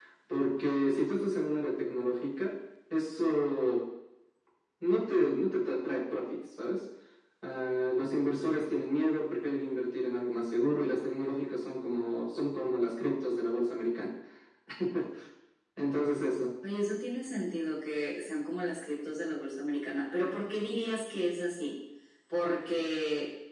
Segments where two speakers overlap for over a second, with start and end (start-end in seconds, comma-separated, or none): none